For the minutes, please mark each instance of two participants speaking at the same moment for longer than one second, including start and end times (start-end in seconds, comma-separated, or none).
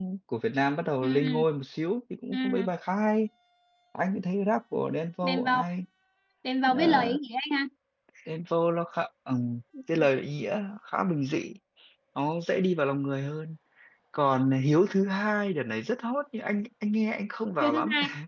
none